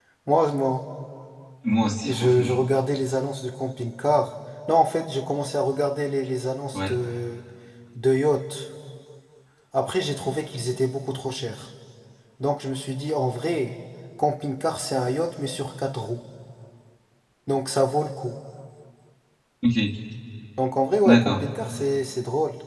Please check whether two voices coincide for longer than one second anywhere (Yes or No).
No